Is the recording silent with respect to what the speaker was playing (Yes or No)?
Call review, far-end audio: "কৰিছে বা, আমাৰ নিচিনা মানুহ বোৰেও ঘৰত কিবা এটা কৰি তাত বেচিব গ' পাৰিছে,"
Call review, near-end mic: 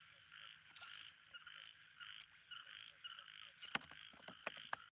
Yes